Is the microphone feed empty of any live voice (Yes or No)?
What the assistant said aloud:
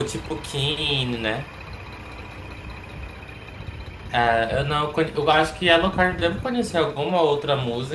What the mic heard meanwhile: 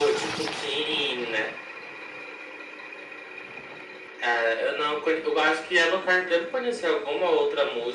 Yes